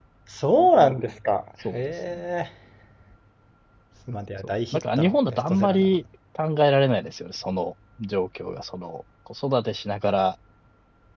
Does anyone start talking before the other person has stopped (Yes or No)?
Yes